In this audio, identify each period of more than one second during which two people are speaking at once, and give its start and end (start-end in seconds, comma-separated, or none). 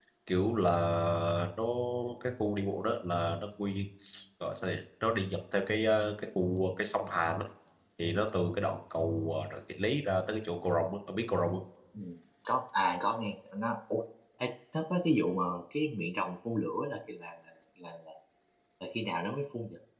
none